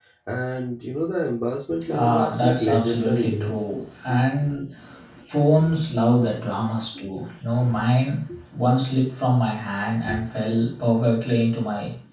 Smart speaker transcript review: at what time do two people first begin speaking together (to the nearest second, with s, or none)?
2 s